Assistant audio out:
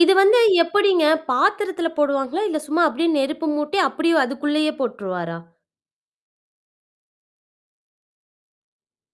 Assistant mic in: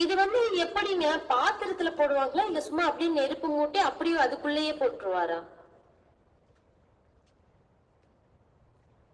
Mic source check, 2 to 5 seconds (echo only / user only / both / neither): echo only